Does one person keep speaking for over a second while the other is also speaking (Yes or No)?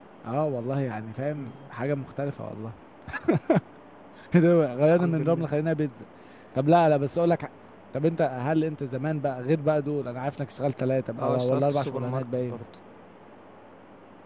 Yes